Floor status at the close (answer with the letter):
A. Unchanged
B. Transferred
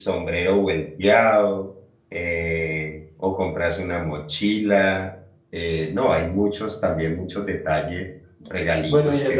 B